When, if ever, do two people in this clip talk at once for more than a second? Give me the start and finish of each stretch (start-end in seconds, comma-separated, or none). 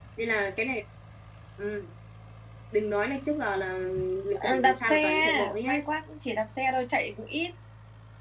4.3-5.8